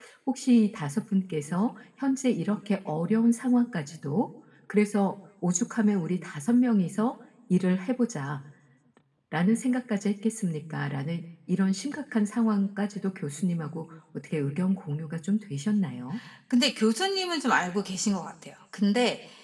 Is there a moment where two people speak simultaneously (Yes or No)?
No